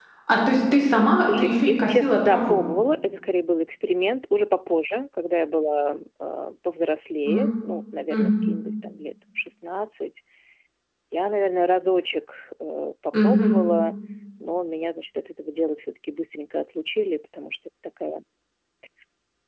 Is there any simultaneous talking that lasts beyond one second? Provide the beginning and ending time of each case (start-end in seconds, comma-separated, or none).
1.3-2.6